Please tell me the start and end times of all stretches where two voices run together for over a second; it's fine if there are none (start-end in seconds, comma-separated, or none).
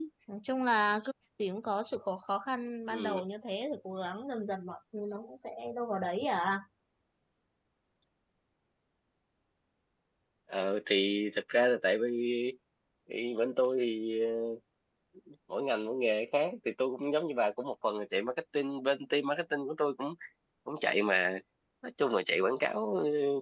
none